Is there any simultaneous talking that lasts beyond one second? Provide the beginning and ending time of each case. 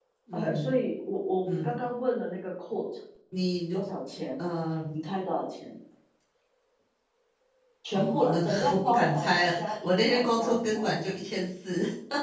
7.9-10.9

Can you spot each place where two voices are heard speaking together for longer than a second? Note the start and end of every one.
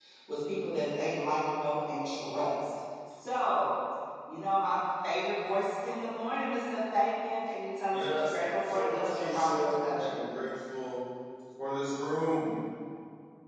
7.9-10.2

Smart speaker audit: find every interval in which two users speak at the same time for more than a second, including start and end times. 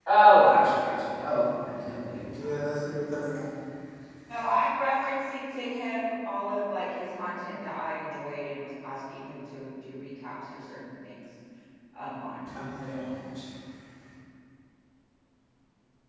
none

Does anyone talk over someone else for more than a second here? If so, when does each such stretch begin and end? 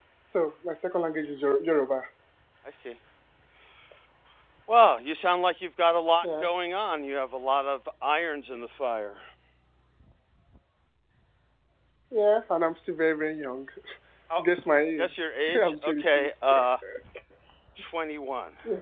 15.0-16.3

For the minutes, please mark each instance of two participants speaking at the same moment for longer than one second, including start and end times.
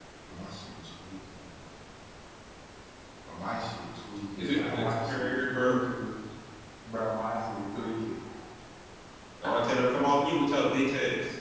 4.4-5.8

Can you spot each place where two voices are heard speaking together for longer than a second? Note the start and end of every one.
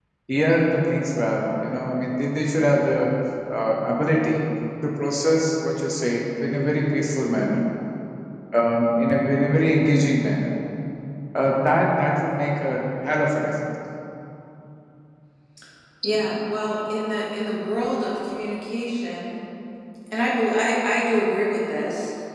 none

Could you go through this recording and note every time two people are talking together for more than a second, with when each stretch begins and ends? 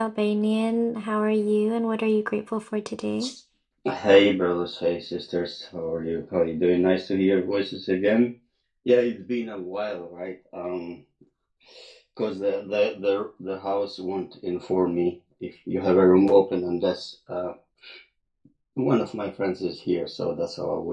none

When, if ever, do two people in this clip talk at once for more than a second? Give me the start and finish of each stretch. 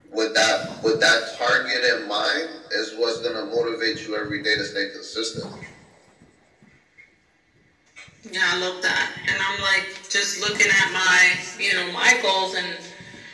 none

